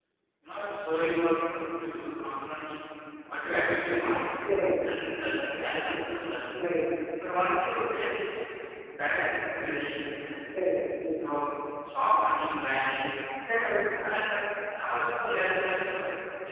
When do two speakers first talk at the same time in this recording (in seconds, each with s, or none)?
none